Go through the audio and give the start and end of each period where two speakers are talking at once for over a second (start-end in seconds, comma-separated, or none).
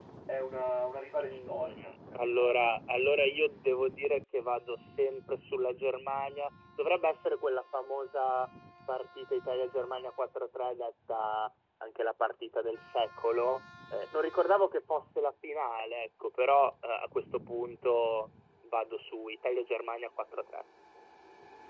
1.2-2.7